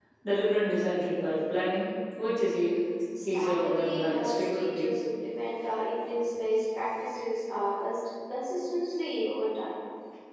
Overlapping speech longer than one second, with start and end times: 3.3-4.9

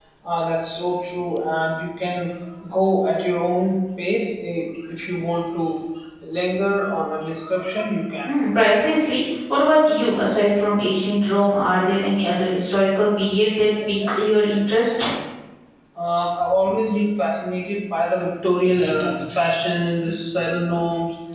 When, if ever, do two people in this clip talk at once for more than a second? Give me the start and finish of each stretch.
none

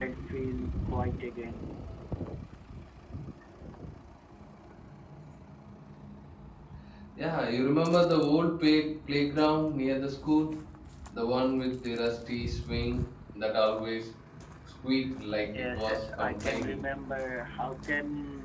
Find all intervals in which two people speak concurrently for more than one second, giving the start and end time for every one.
15.6-16.8

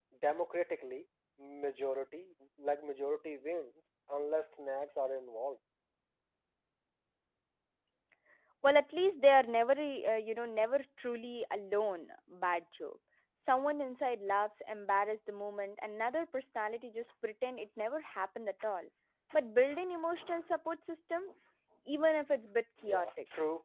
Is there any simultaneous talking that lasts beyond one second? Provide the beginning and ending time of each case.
none

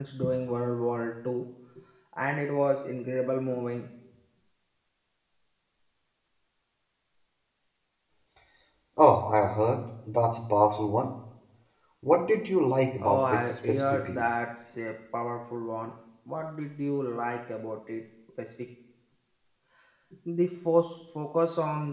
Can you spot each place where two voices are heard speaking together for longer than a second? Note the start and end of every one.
13.0-14.2

